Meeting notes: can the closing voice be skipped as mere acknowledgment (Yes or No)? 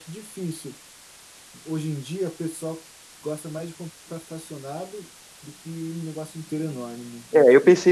No